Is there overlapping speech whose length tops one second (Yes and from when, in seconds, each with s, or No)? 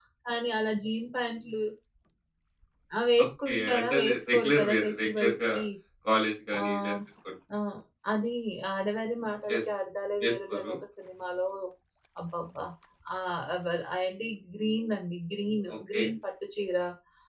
Yes, from 3.2 s